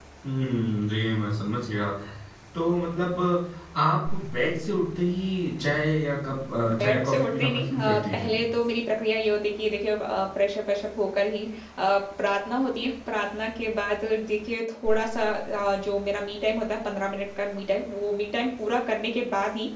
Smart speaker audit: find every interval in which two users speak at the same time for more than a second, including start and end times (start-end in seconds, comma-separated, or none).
6.8-8.3